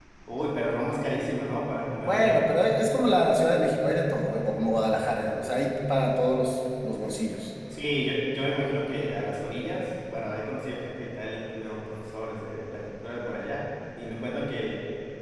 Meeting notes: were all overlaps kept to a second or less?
Yes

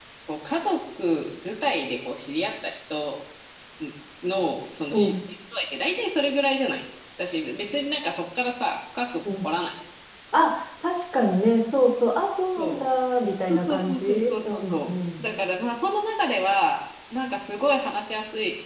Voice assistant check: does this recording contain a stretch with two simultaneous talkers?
Yes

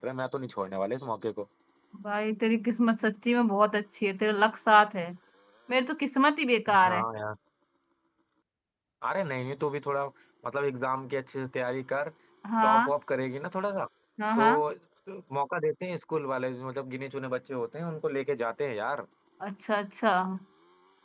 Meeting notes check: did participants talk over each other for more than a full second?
No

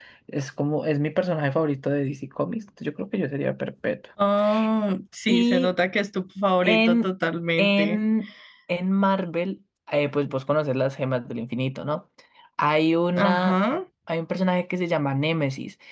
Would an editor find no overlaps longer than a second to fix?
Yes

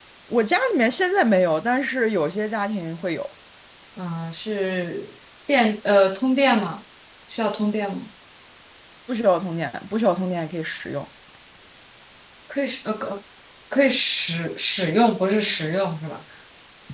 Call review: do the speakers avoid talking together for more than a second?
Yes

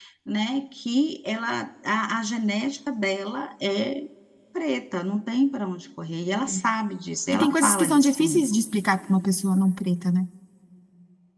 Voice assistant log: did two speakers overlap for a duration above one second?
Yes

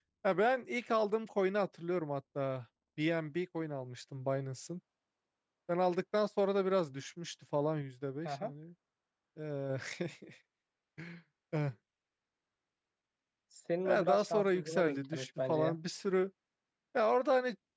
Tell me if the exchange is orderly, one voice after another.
No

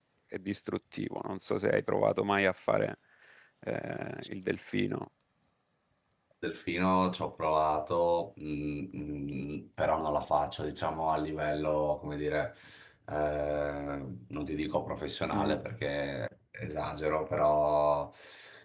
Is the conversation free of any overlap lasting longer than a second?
Yes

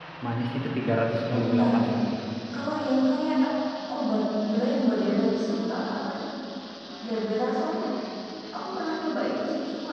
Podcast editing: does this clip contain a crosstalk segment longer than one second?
No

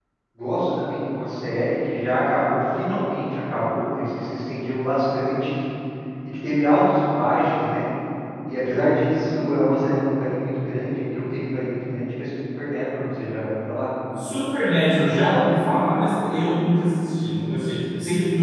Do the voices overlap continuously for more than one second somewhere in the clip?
No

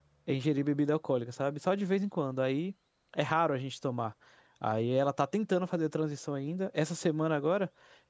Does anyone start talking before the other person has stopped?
No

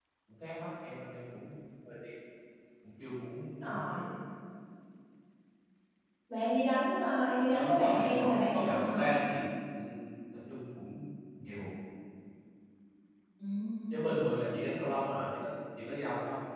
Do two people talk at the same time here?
Yes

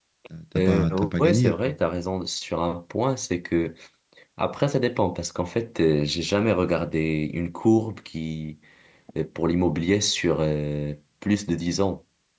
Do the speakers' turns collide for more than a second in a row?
Yes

